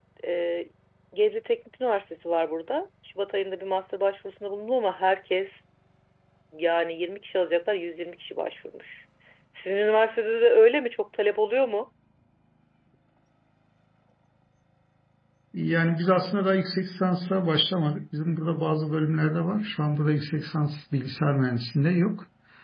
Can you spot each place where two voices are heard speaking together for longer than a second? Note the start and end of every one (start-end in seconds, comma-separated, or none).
none